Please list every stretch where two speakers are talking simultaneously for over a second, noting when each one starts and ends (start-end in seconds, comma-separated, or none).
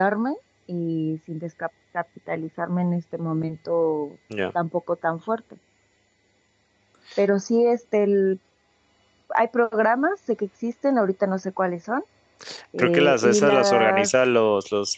12.8-14.1